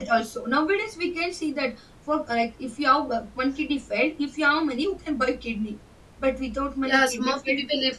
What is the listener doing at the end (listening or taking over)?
taking over